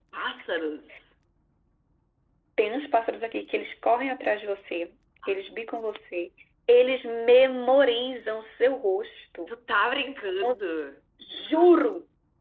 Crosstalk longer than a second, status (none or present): none